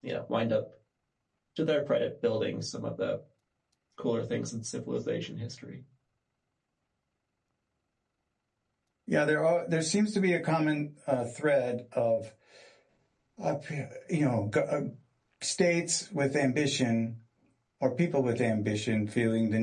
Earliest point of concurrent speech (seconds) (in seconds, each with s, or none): none